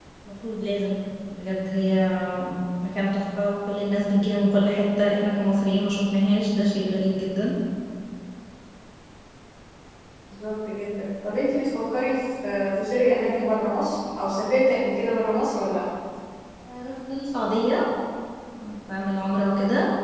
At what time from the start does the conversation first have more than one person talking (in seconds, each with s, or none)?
none